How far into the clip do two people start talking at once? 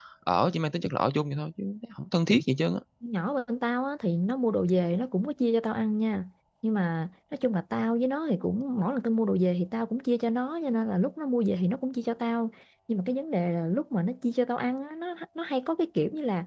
none

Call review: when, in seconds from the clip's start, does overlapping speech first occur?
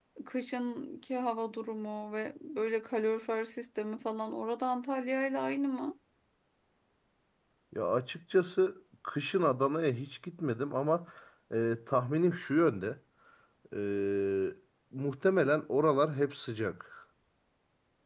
none

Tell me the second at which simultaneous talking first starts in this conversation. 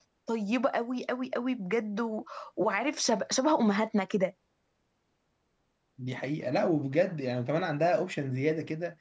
none

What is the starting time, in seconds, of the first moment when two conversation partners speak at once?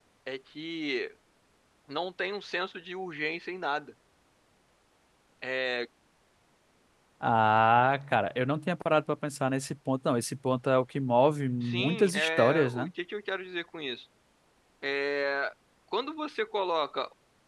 11.6 s

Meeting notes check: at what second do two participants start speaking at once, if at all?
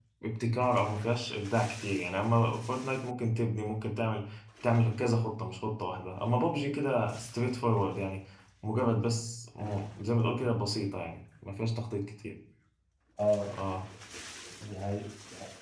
none

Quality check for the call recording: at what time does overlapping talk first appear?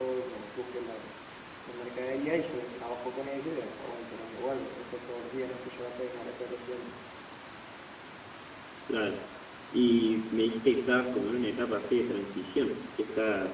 none

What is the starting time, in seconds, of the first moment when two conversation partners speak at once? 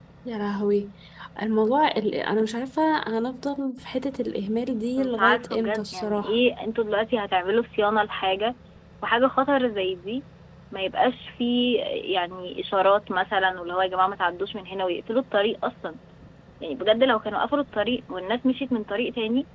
5.0 s

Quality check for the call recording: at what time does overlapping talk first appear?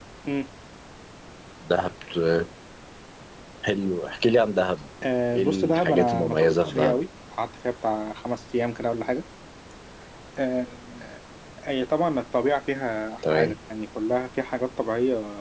5.4 s

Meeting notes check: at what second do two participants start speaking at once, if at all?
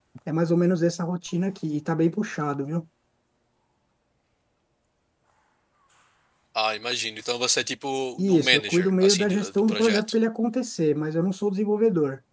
8.2 s

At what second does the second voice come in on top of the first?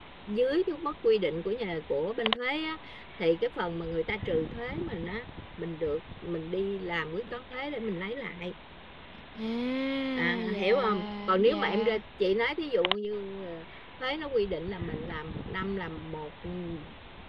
10.2 s

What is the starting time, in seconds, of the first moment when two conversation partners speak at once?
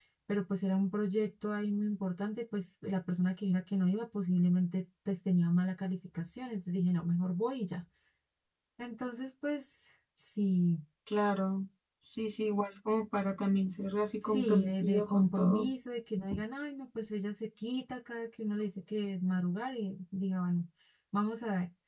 14.2 s

